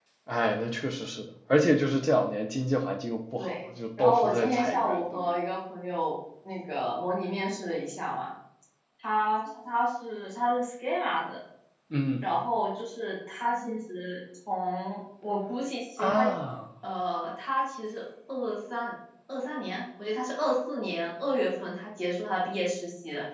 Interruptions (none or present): present